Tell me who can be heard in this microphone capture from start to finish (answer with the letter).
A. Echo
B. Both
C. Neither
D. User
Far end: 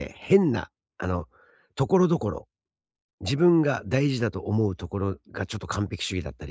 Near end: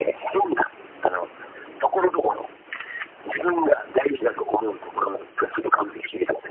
A